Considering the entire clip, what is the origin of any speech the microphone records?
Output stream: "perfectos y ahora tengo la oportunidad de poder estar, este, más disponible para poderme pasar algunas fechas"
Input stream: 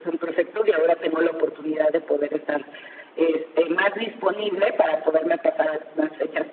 echo only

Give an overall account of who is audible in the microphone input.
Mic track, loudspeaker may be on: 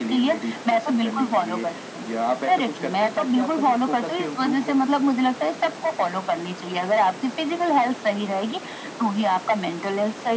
echo only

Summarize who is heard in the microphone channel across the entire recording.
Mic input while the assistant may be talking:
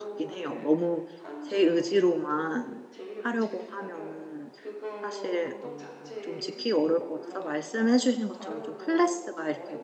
both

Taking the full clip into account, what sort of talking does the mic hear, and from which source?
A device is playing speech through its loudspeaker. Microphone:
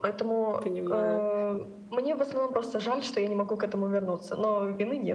both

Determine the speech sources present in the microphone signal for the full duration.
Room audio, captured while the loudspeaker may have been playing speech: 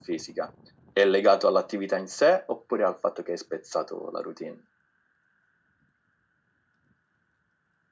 echo only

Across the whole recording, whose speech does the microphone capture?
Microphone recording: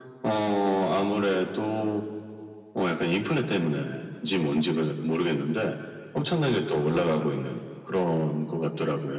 echo only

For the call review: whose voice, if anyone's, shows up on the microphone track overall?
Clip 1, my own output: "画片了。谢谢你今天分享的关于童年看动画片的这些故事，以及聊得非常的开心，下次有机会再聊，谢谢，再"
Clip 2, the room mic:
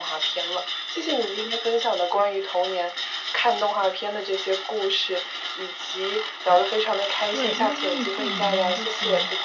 both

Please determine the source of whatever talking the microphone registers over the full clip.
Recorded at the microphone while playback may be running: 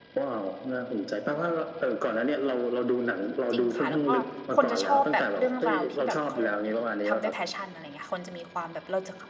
both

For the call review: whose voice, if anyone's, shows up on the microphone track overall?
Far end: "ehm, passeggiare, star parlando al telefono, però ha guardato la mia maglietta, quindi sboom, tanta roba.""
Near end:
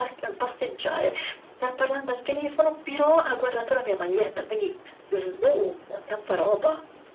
echo only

